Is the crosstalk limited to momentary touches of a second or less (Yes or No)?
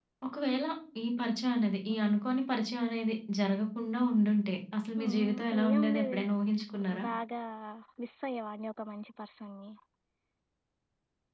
No